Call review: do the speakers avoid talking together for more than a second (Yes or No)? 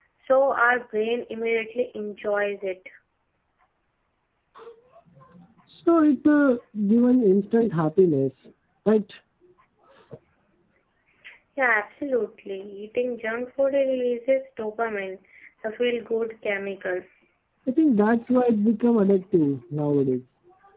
Yes